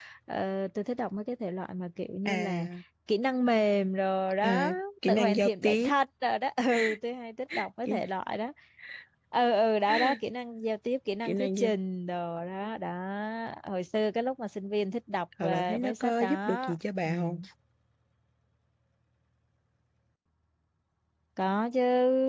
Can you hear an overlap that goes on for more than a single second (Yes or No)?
Yes